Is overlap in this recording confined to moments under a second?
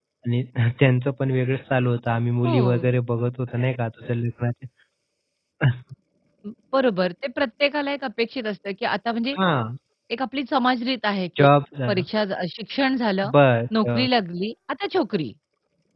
Yes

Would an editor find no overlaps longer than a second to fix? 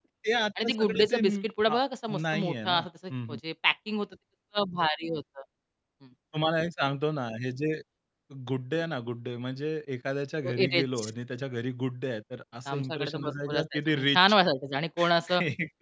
No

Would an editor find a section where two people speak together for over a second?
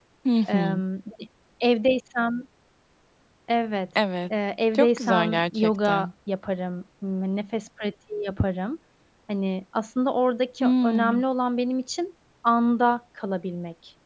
Yes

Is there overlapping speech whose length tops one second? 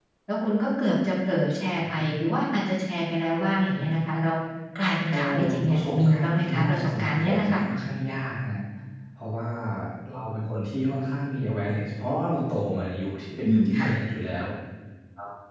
Yes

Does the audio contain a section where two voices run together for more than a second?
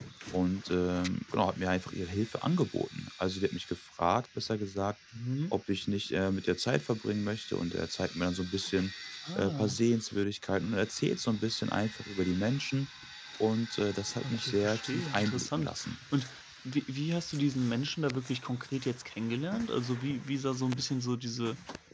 Yes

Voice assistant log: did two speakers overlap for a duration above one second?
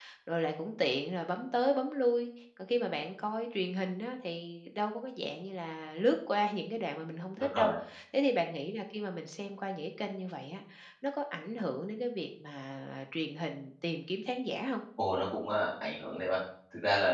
No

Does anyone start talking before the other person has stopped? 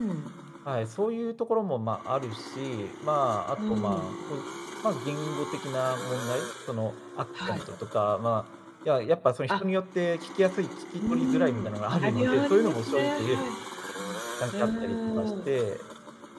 Yes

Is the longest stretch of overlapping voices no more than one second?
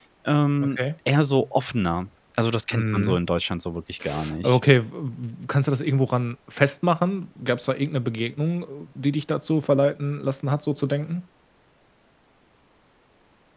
Yes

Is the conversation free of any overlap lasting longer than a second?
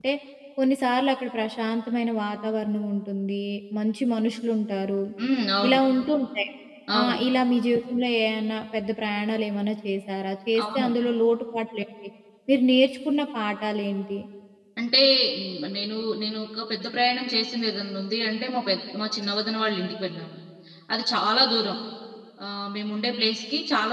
Yes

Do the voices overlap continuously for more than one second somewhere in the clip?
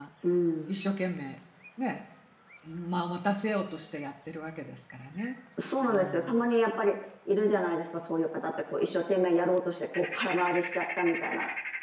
No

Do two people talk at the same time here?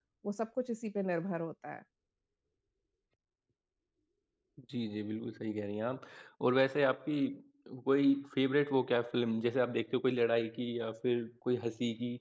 No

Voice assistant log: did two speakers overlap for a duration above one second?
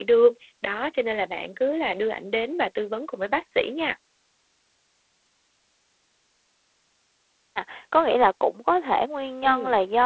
No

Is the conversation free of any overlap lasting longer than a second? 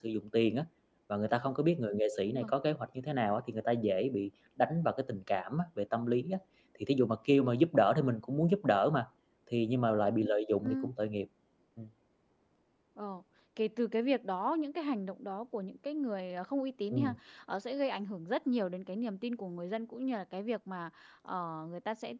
Yes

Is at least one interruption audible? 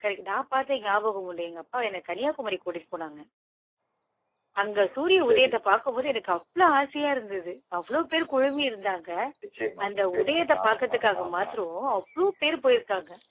Yes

